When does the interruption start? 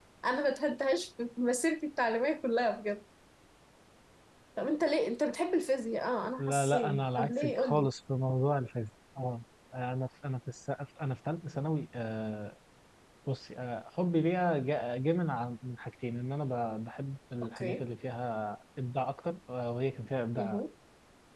6.4 s

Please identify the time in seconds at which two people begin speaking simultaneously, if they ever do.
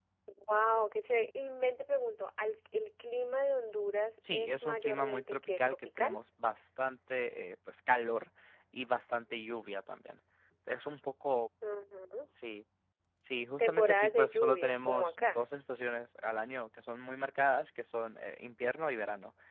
4.3 s

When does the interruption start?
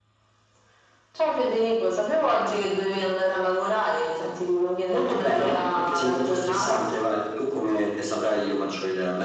4.9 s

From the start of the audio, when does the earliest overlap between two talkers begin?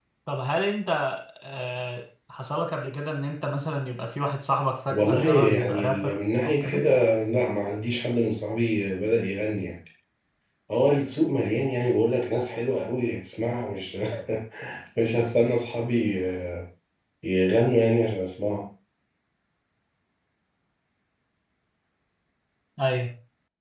4.9 s

